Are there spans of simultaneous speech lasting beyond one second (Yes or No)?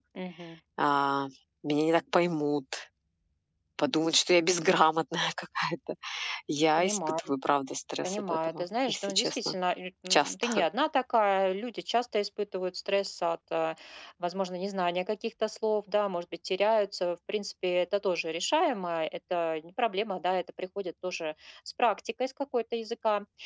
Yes